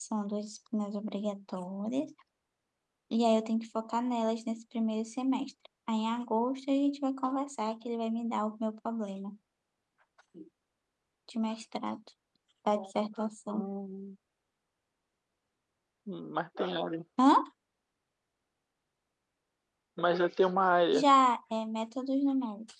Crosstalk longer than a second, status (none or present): none